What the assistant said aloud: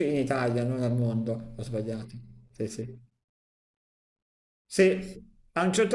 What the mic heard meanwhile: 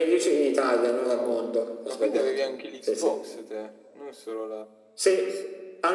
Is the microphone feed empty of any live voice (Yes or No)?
No